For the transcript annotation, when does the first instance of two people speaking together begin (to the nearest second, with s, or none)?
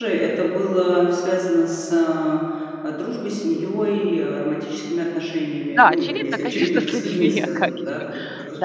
6 s